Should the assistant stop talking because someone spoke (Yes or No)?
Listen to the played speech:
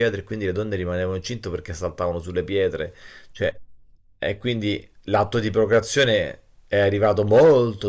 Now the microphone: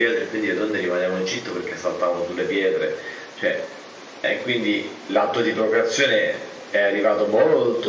No